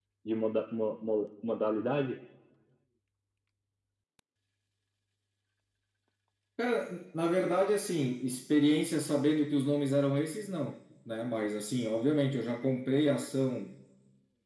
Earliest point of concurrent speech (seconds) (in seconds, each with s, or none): none